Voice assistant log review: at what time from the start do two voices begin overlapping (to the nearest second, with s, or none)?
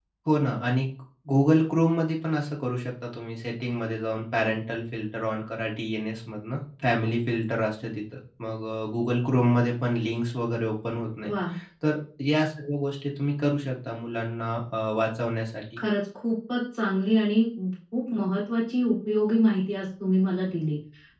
none